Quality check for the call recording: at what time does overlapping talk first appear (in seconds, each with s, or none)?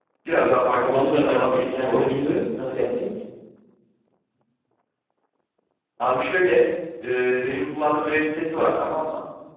0.9 s